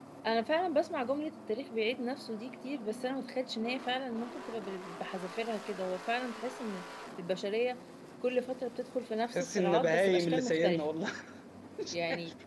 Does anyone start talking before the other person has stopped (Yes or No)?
Yes